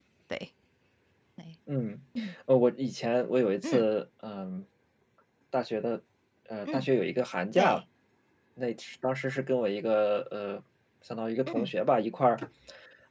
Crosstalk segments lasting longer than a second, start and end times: none

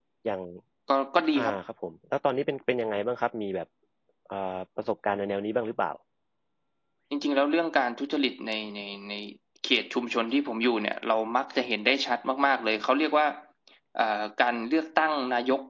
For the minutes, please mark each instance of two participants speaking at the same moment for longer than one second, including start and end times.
none

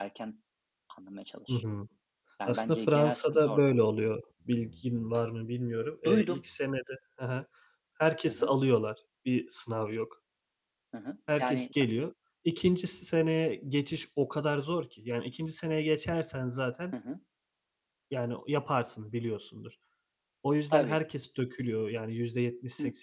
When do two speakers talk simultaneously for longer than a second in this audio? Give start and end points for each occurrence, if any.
2.5-3.7

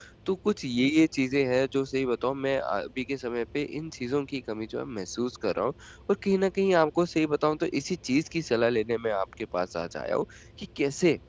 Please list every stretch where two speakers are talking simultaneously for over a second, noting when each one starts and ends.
none

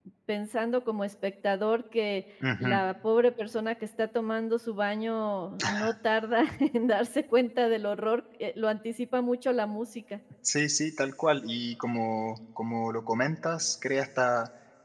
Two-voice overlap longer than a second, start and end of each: none

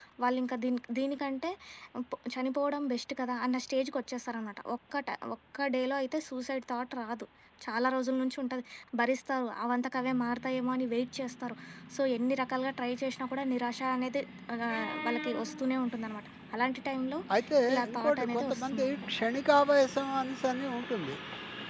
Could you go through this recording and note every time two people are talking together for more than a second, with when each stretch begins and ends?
17.7-19.2

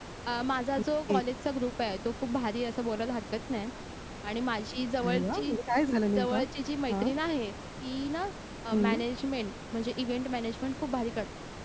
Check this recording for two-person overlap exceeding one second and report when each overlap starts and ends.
none

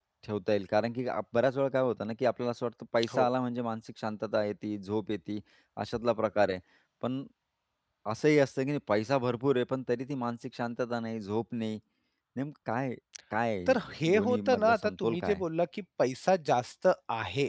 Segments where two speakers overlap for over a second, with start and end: 13.7-15.4

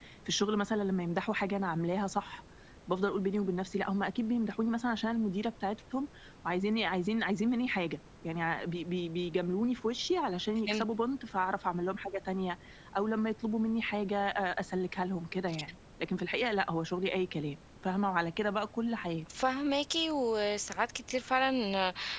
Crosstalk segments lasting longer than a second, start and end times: none

